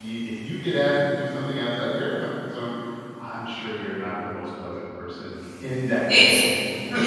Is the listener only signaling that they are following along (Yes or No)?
No